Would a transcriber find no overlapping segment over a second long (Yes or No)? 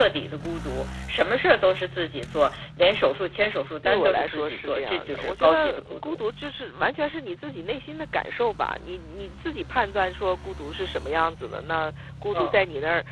No